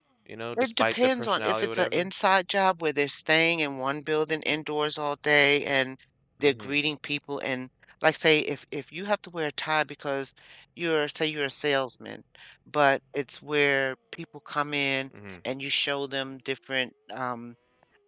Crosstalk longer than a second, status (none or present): present